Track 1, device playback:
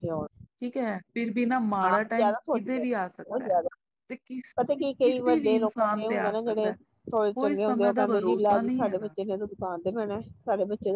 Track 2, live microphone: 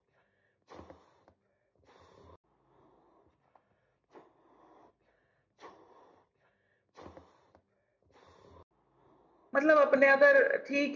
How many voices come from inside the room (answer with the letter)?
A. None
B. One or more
B